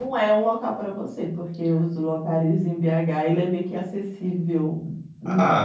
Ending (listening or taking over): taking over